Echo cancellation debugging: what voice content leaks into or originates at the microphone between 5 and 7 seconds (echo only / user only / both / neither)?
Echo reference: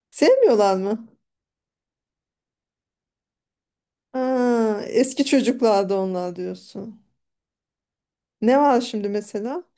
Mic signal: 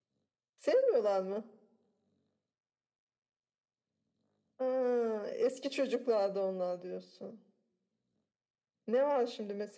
echo only